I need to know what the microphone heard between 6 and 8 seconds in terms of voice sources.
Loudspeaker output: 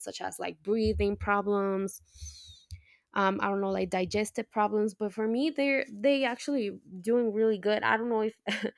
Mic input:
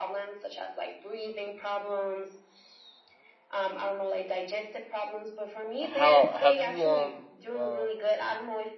both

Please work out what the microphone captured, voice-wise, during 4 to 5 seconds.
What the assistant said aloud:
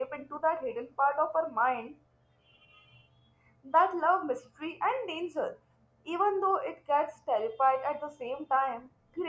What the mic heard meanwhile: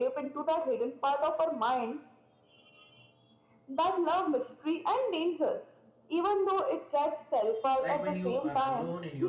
echo only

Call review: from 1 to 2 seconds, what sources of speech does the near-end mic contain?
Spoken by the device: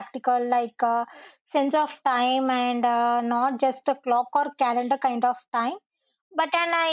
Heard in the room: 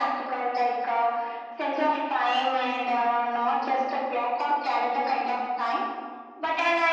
echo only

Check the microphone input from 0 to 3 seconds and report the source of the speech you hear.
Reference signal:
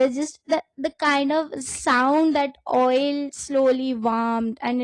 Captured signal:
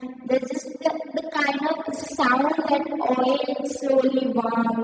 echo only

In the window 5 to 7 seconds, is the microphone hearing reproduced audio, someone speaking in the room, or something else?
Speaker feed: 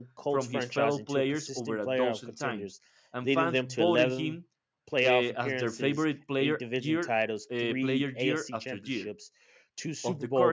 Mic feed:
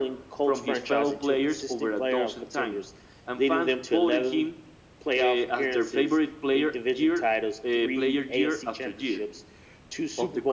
echo only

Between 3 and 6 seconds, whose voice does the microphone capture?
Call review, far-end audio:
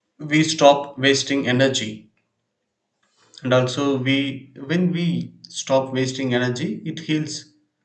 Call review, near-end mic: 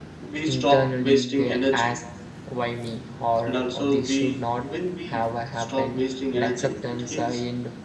both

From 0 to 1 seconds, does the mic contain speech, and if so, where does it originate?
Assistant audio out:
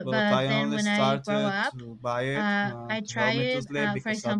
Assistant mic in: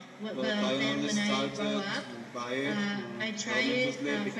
echo only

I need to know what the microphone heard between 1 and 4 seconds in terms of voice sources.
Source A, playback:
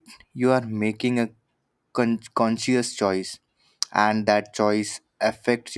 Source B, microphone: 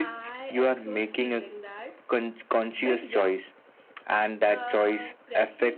both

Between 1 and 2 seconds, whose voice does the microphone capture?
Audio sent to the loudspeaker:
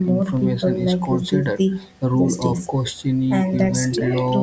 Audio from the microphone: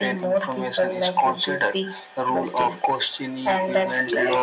echo only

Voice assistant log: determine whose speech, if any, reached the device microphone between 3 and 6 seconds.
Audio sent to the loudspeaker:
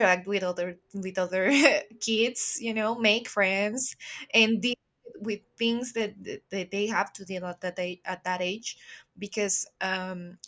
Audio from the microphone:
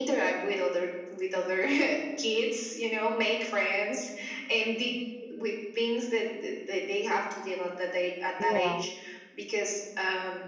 echo only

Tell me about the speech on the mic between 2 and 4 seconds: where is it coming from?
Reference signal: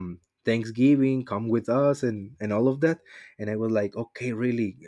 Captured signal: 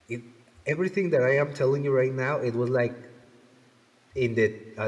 user only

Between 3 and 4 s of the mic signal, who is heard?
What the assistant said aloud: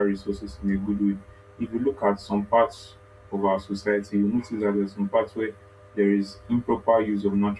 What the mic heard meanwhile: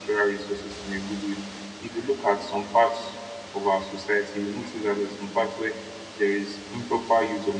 echo only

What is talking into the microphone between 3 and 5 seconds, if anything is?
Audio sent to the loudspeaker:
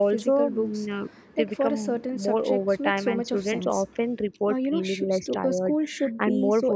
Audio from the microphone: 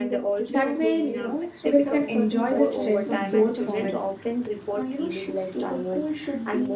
both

